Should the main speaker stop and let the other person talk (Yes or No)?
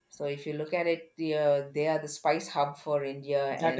Yes